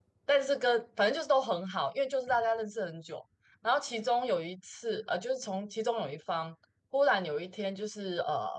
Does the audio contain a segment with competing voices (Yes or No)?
No